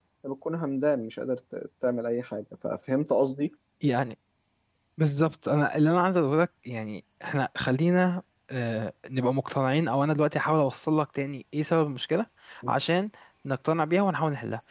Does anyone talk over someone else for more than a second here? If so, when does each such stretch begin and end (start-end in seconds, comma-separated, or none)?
none